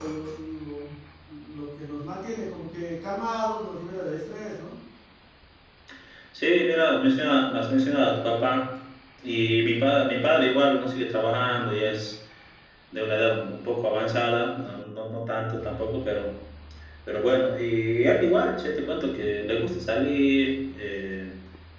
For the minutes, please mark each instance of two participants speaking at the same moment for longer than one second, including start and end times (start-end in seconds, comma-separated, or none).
none